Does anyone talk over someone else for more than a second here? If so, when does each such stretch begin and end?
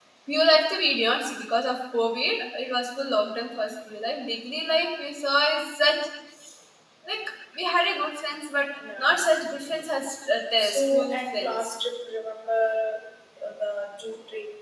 10.6-11.8

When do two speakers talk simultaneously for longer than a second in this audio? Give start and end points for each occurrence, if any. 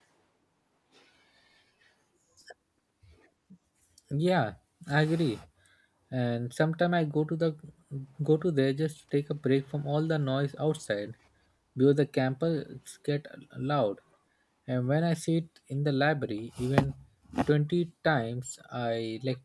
none

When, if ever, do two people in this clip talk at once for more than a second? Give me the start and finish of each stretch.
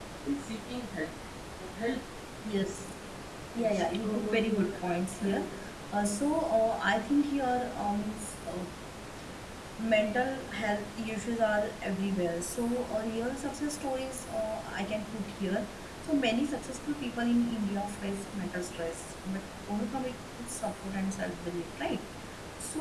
3.6-5.4

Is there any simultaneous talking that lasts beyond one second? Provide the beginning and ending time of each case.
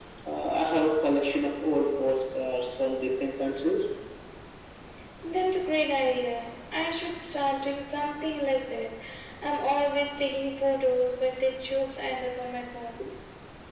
none

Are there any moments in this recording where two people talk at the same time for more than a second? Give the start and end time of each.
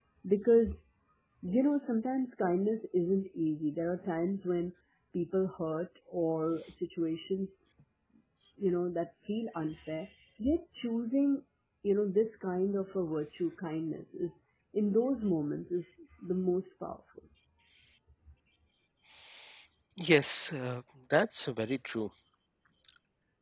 none

